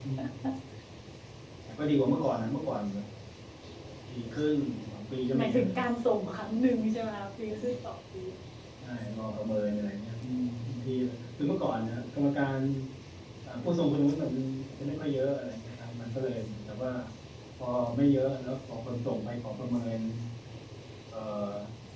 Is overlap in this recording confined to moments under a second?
Yes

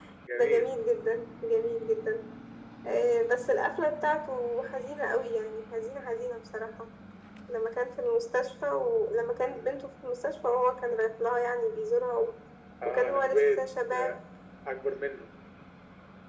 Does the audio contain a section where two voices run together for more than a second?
Yes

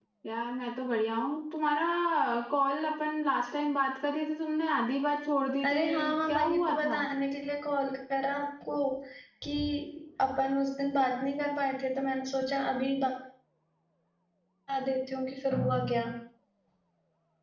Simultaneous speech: Yes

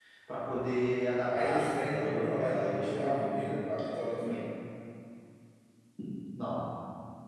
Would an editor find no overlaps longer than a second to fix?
No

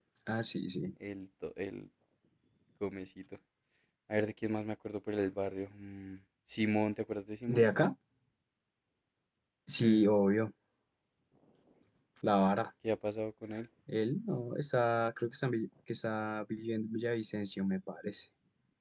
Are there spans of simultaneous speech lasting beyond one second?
No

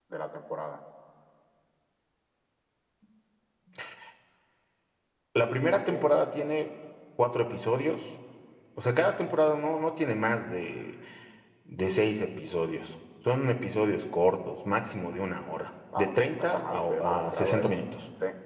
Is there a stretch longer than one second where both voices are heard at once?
Yes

